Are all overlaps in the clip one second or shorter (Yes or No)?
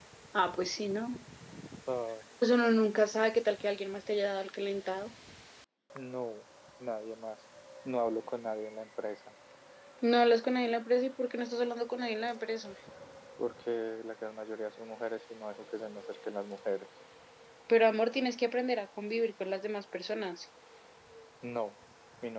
Yes